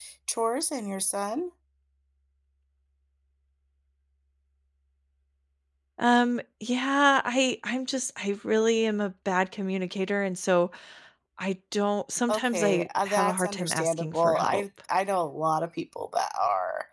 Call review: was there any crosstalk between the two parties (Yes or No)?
Yes